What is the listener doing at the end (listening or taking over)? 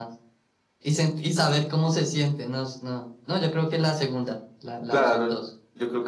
taking over